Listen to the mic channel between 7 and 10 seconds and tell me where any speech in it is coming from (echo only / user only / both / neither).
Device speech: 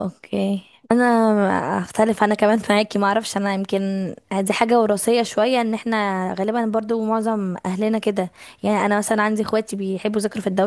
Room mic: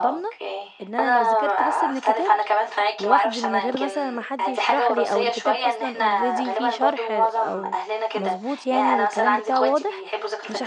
both